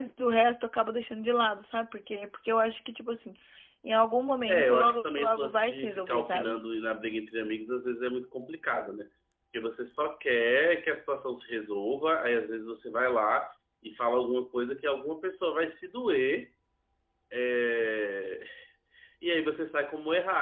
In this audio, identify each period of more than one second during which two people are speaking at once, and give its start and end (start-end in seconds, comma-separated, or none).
4.5-6.5